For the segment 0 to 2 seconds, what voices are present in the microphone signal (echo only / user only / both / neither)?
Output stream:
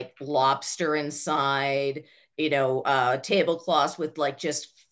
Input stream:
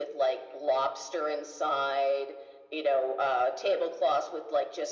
echo only